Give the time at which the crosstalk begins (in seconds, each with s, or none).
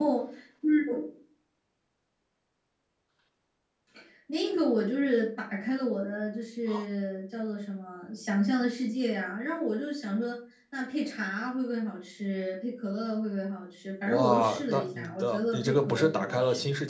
14.1 s